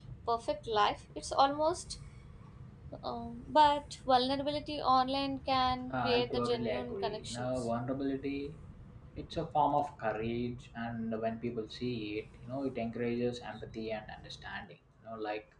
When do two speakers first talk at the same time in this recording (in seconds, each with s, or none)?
5.9 s